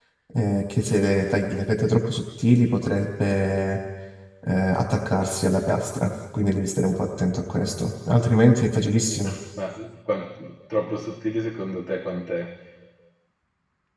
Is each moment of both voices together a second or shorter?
Yes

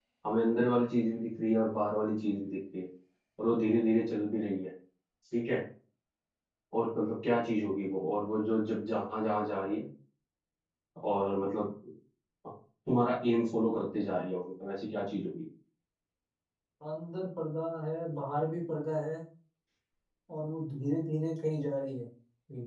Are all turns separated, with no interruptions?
Yes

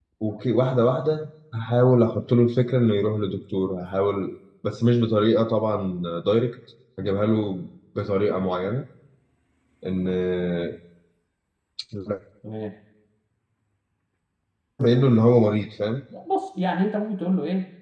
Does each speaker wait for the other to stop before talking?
Yes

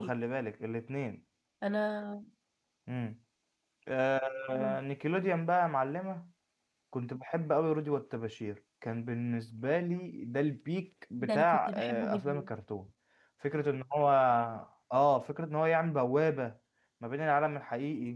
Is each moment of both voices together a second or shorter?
No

